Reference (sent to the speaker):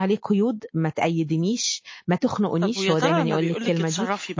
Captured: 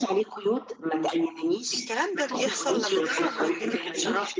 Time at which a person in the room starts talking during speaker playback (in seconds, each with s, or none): 1.7 s